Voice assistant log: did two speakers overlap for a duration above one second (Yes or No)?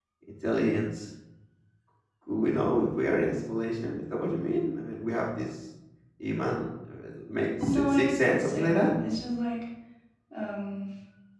Yes